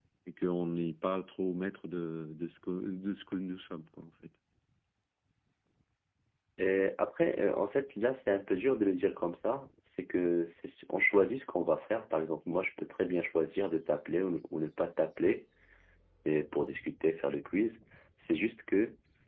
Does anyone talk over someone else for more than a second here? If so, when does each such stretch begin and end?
none

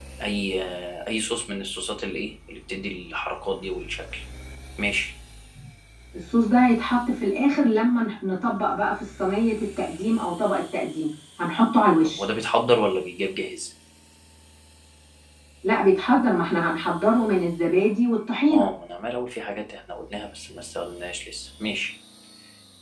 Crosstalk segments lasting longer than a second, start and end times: none

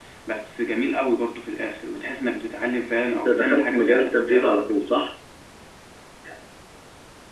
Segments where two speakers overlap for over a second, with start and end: 3.2-4.7

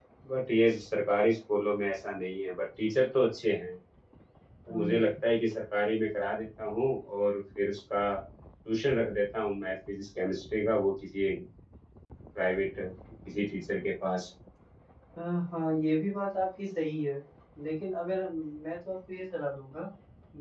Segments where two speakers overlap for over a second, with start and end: none

